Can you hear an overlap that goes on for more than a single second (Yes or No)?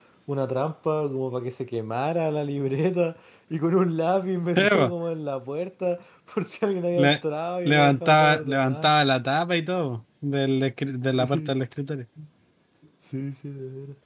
Yes